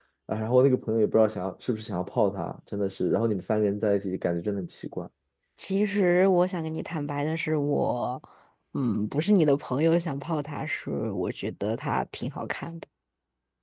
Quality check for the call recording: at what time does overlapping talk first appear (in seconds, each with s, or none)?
none